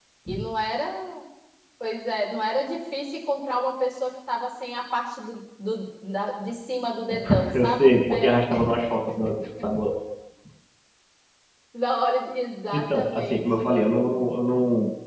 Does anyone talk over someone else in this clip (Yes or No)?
Yes